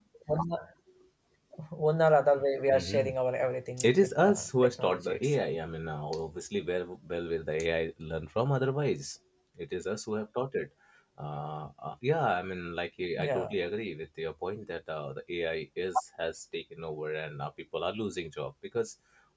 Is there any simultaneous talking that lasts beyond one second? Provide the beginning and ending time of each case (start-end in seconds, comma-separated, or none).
3.9-5.3